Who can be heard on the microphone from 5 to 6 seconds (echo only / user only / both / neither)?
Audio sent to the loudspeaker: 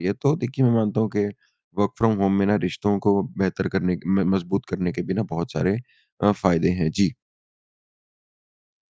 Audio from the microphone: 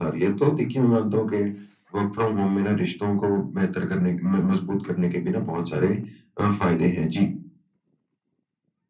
echo only